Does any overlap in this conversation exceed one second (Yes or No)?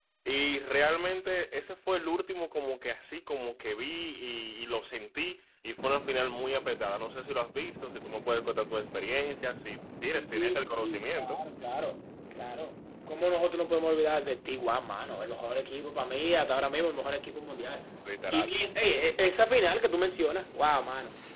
Yes